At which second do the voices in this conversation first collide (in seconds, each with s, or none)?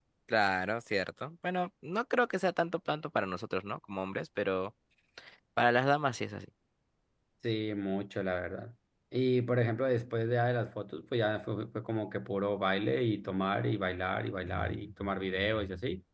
none